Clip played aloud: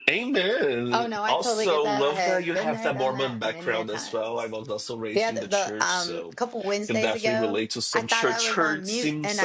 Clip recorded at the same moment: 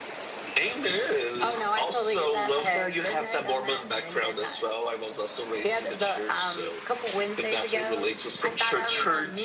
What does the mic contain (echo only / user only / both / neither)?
echo only